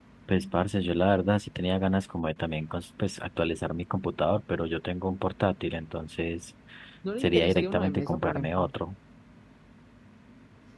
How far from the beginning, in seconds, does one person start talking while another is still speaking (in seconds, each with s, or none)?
7.2 s